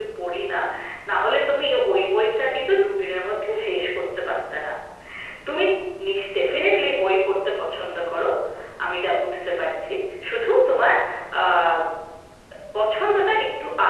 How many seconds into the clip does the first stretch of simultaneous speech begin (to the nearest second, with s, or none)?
none